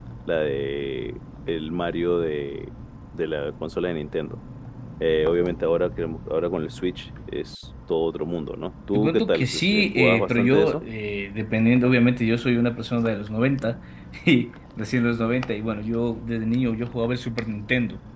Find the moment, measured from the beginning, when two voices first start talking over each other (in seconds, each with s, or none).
8.9 s